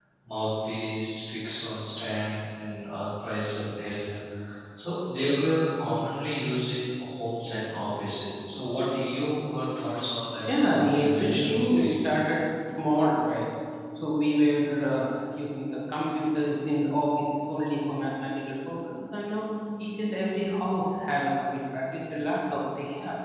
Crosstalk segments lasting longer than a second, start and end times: 10.6-12.2

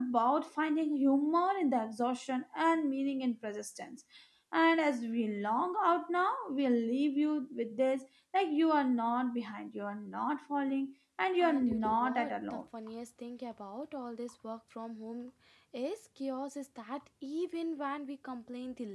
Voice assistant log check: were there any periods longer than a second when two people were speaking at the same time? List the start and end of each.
11.4-12.6

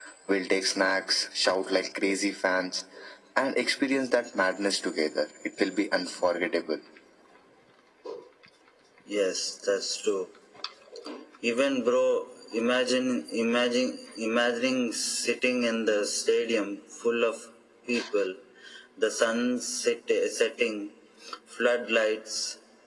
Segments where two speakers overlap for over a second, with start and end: none

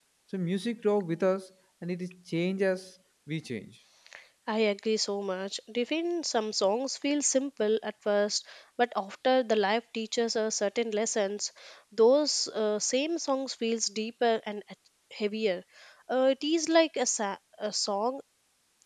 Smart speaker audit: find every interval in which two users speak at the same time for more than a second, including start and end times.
none

